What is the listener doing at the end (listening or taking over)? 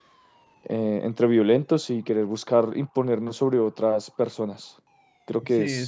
taking over